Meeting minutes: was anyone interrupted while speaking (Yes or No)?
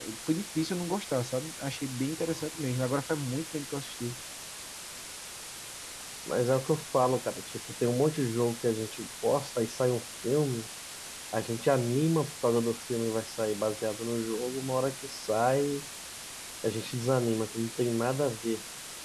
No